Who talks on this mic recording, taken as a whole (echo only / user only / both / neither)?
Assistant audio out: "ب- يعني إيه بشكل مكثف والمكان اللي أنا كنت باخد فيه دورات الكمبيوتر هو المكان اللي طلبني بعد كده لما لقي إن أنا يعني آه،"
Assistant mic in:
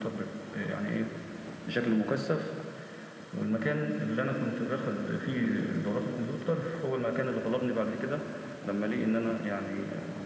echo only